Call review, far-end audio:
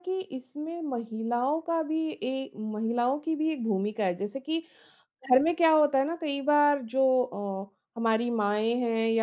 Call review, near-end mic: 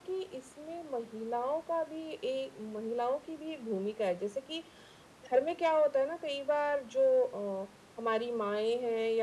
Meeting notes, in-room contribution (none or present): none